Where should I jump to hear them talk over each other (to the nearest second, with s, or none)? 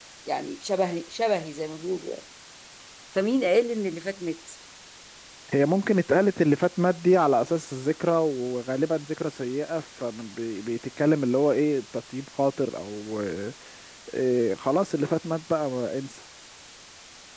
none